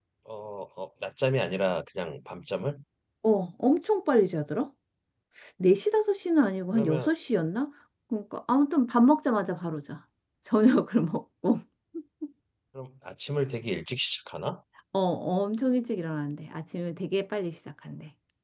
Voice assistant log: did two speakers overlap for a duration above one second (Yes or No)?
No